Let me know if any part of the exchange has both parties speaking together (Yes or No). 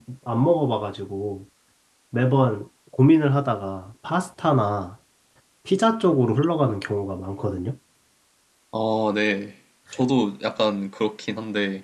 No